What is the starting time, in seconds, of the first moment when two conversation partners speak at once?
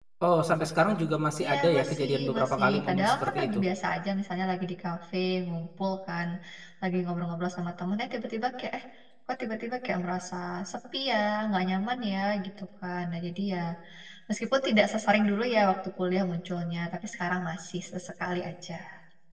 1 s

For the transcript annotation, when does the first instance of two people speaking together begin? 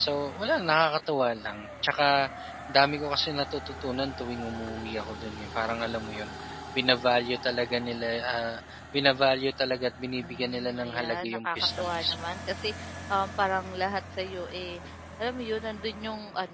10 s

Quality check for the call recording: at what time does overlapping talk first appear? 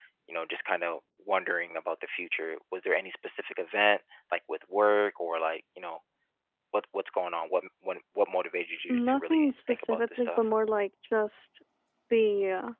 9 s

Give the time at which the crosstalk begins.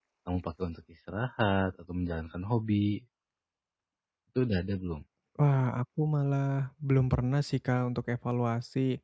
none

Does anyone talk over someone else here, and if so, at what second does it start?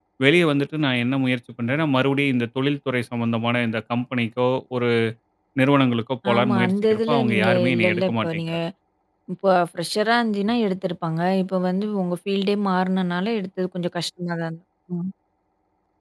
6 s

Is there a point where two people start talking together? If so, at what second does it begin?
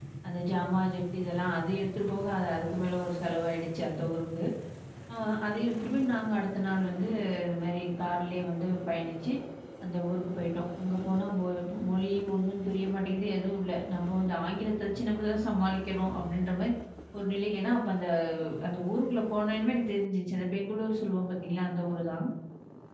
none

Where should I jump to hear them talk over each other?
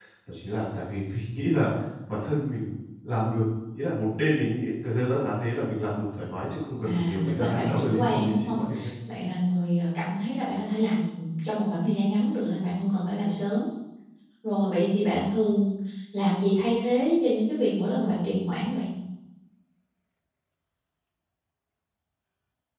7 s

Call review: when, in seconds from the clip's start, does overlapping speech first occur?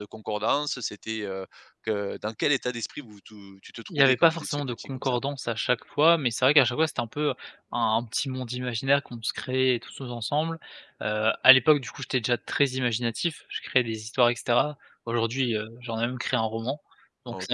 4 s

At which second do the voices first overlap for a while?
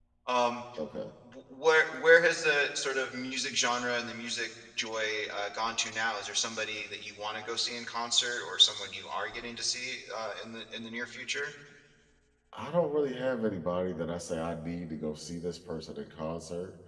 none

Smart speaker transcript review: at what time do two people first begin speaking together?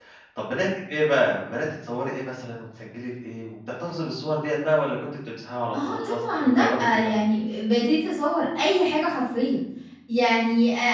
6 s

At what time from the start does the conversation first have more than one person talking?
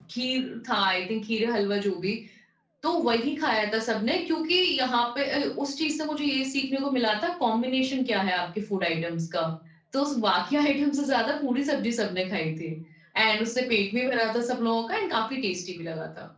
none

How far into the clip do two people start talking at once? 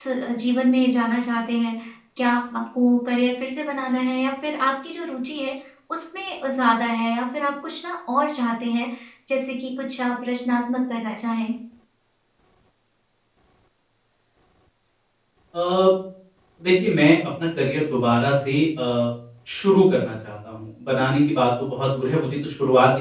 none

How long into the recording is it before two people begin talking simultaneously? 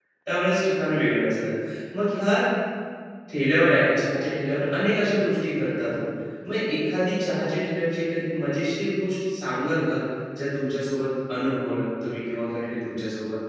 none

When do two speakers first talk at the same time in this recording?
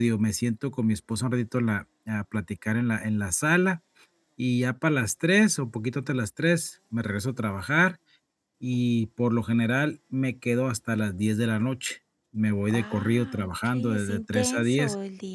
13 s

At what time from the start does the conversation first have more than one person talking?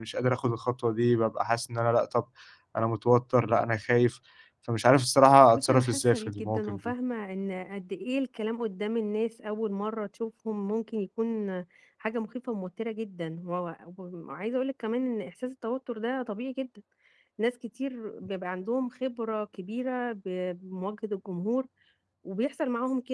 6 s

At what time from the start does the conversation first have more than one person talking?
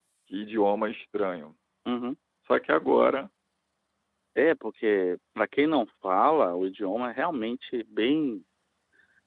none

